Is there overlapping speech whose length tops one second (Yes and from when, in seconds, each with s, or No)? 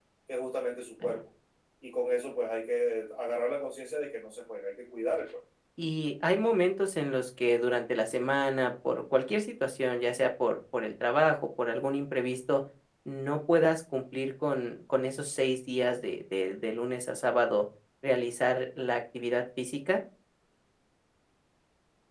No